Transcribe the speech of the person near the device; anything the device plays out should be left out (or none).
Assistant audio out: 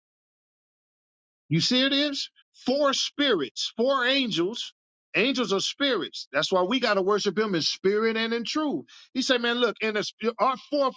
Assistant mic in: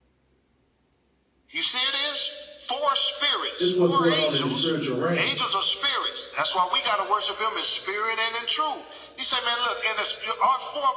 This what's going on in the spiritual realm.